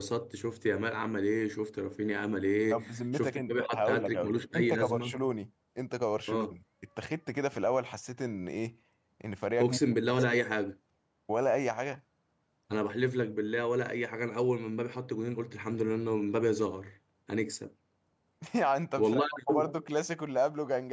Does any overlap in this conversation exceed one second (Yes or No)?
Yes